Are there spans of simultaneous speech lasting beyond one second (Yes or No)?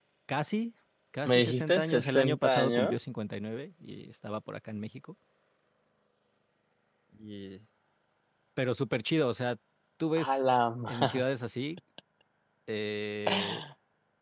Yes